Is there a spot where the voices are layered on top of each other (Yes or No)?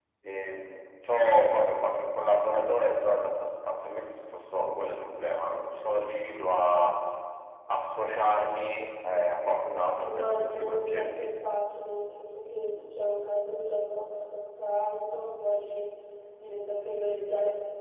Yes